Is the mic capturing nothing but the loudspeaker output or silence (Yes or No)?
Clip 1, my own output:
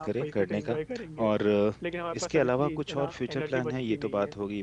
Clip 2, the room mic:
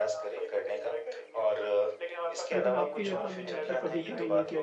No